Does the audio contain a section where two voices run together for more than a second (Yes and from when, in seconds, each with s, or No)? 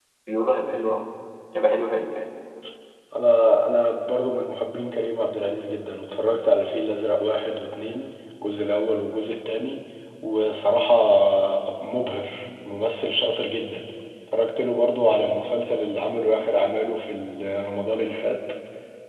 No